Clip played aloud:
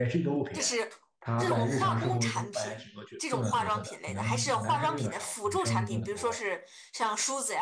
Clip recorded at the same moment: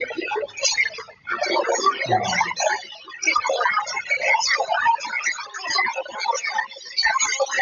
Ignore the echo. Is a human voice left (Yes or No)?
Yes